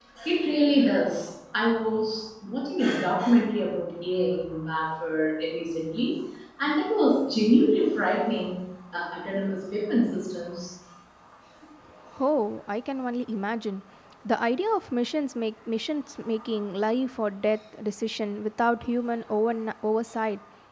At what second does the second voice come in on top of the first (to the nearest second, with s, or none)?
none